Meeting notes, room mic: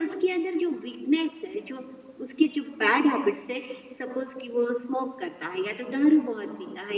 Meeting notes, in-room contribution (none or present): none